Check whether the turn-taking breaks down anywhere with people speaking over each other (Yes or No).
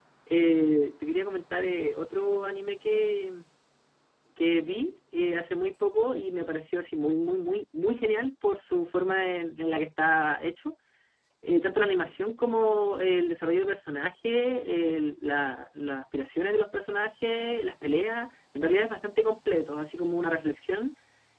No